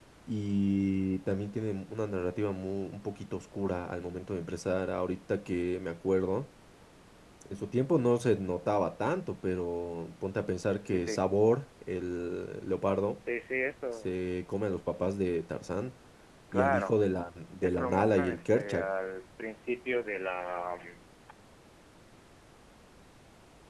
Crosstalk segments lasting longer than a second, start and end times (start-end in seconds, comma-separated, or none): 17.6-18.9